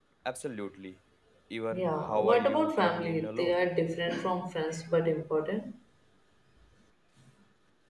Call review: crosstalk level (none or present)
present